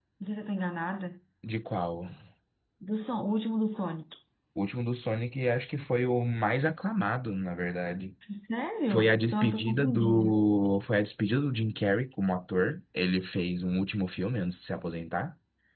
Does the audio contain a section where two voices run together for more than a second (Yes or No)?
Yes